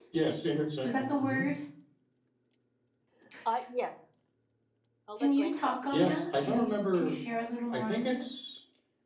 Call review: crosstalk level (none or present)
present